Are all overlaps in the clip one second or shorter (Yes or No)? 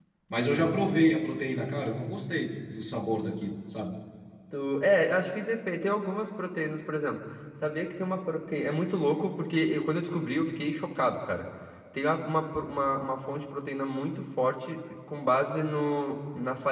Yes